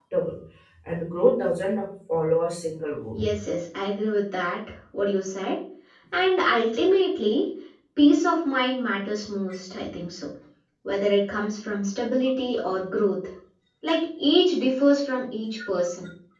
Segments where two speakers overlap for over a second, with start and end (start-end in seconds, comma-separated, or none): none